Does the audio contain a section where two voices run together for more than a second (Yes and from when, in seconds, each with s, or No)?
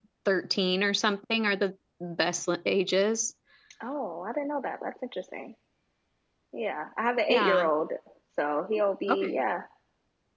No